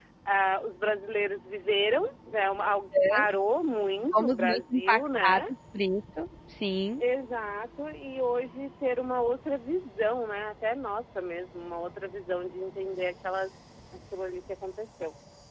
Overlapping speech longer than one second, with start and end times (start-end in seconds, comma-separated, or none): 4.1-5.4